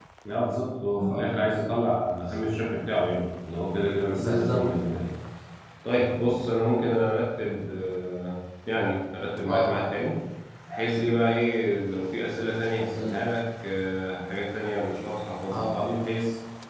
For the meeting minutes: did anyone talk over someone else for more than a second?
No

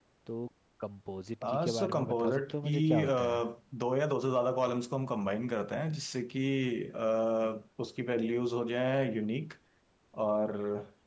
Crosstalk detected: Yes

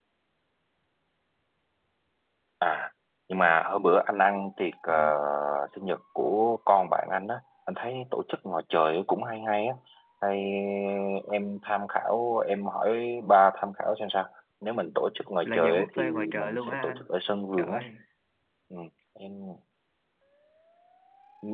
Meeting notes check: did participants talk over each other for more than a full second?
Yes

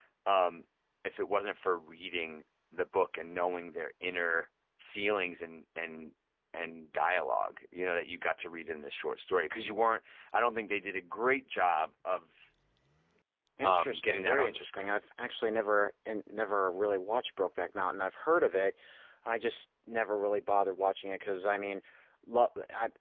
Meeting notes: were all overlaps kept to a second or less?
No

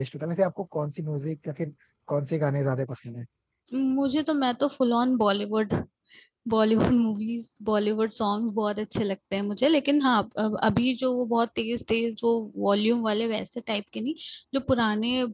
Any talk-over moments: No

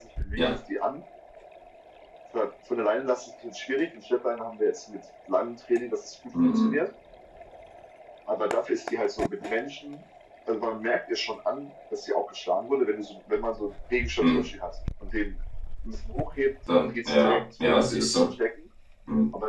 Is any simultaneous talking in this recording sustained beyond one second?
Yes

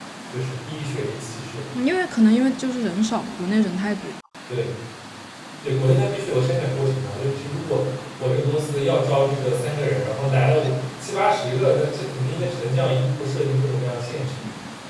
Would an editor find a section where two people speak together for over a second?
No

